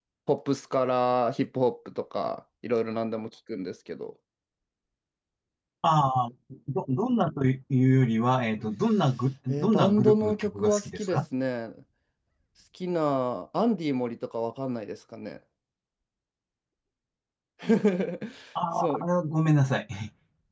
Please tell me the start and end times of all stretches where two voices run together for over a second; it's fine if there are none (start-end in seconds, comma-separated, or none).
9.5-11.2